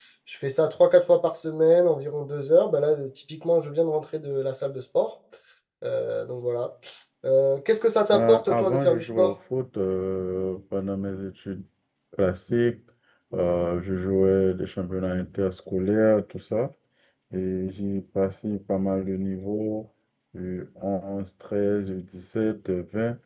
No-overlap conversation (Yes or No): No